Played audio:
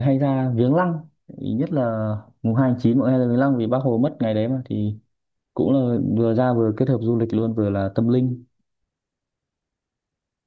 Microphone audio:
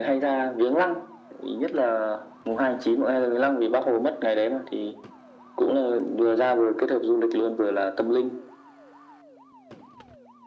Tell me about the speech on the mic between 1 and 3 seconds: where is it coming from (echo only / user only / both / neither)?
echo only